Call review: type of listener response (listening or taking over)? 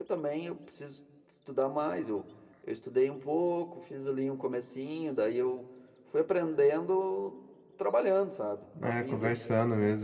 taking over